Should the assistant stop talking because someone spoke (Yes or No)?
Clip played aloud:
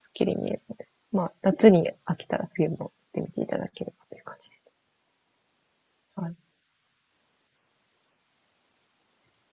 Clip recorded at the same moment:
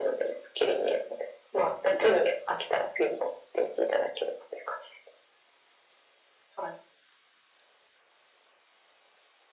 No